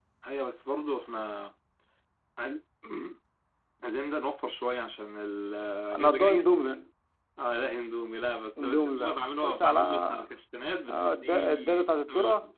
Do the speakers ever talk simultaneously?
Yes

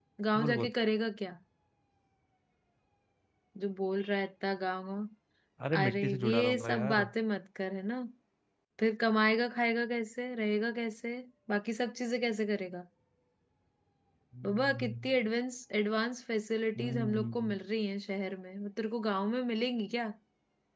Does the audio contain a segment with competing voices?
Yes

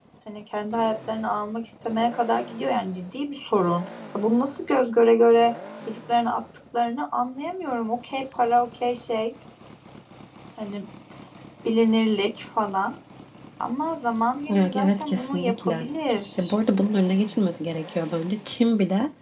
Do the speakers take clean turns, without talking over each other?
No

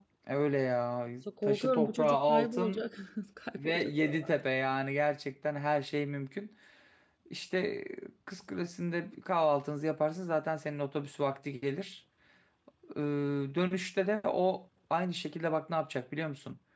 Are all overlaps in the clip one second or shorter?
No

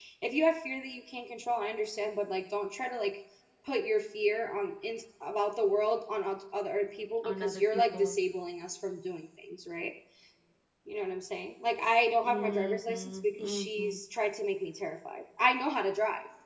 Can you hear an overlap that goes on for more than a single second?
Yes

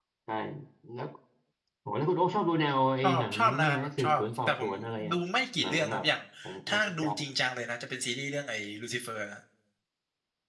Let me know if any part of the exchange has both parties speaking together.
Yes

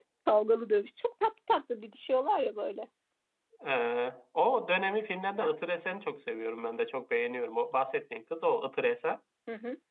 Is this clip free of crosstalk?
Yes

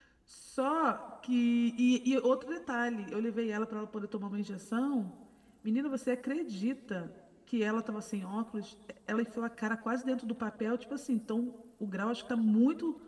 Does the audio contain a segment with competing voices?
No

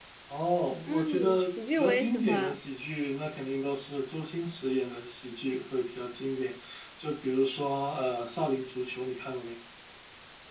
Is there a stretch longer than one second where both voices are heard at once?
Yes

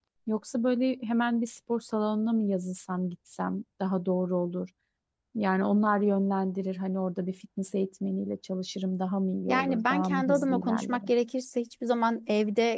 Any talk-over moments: Yes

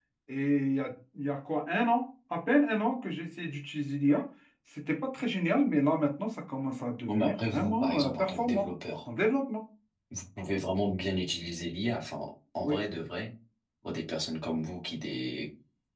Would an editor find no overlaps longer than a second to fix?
No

